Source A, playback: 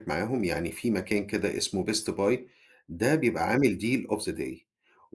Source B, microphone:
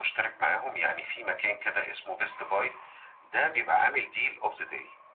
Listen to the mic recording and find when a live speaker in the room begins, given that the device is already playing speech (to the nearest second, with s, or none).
none